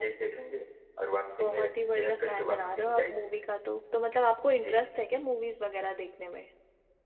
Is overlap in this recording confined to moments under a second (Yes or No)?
No